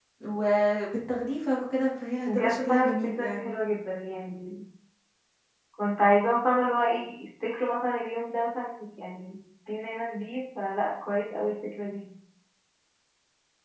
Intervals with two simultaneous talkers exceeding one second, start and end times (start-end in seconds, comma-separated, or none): 2.3-3.5